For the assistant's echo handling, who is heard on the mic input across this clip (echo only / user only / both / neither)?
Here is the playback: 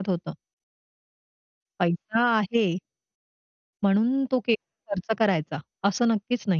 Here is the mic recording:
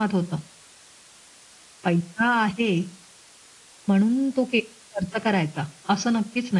echo only